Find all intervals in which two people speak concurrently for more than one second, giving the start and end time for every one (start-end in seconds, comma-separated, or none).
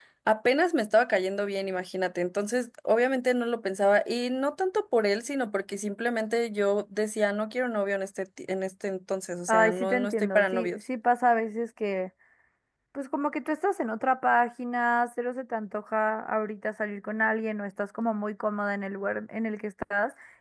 9.5-10.8